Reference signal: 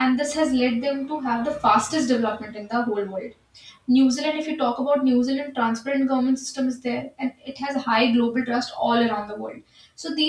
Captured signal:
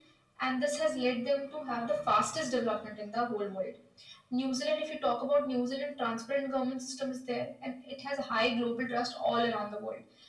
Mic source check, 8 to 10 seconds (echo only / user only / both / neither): echo only